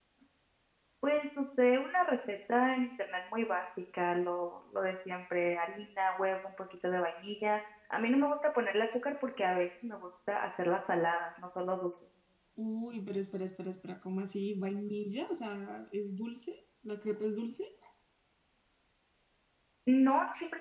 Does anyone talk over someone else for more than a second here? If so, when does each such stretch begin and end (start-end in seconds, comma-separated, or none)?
none